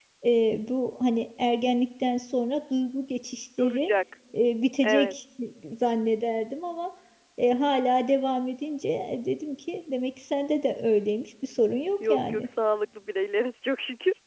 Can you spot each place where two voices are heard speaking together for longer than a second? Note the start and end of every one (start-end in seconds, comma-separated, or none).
none